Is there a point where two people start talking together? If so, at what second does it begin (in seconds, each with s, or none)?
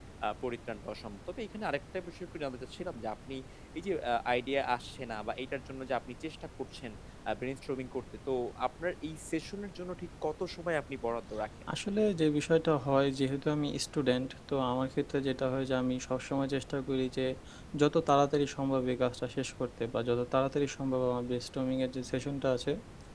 none